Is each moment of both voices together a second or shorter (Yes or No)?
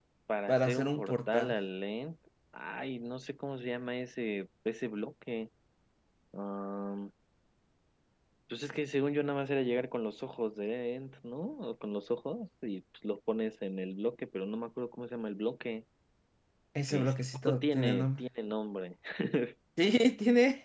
No